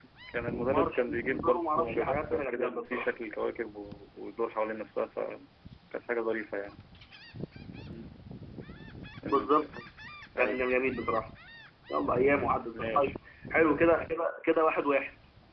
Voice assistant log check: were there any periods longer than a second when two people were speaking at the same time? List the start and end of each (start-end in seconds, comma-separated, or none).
0.7-3.1